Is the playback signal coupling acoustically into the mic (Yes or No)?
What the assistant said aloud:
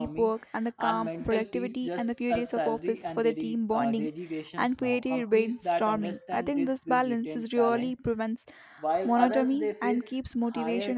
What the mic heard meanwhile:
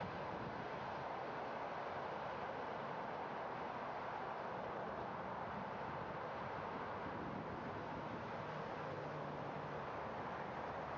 No